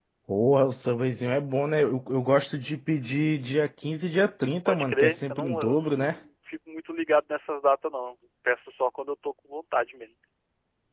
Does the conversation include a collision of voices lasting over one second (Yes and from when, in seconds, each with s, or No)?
Yes, from 4.7 s